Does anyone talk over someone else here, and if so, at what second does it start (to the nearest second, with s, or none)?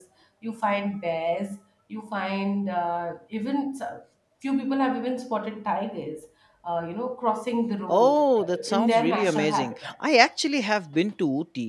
8 s